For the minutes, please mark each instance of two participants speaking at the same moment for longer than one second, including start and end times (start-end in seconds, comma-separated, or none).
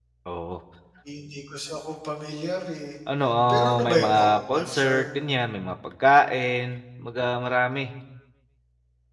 3.5-5.0